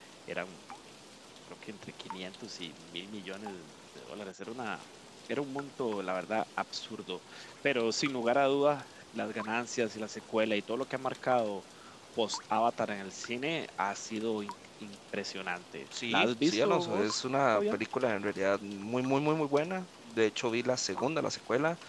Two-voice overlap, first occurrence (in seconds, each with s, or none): 15.9 s